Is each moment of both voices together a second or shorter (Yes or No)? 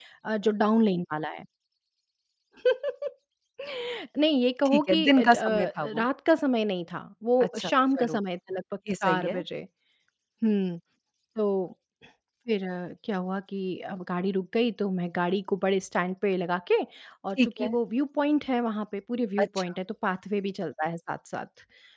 No